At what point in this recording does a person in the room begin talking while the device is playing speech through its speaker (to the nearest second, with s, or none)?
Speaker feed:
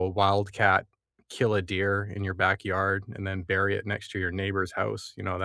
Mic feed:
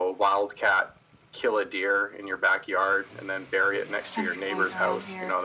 4 s